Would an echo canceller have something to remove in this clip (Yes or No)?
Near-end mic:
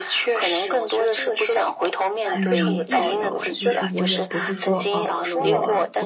Yes